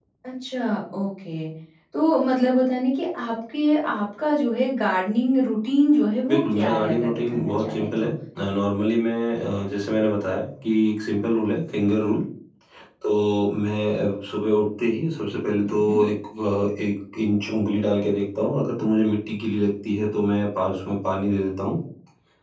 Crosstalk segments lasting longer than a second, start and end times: 6.3-8.1

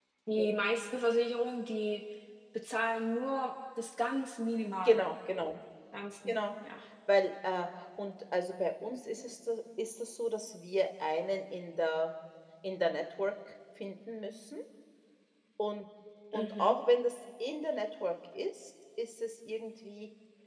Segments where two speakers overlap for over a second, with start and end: none

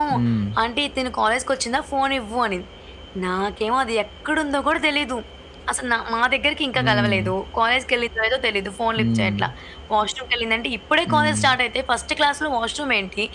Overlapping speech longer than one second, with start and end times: none

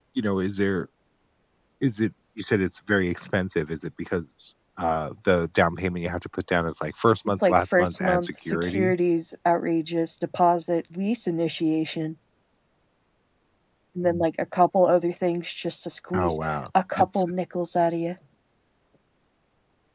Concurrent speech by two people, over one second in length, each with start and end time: 7.4-8.9

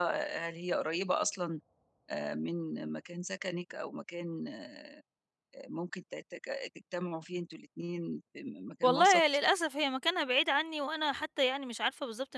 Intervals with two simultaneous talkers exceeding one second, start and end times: none

